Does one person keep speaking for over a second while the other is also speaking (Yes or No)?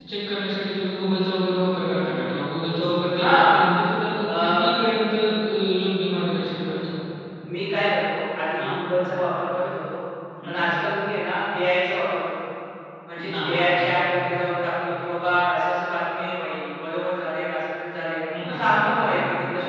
Yes